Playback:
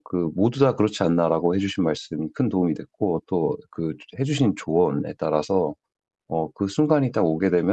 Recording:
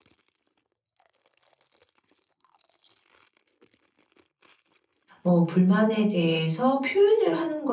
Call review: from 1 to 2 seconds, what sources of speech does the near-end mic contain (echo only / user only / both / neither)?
neither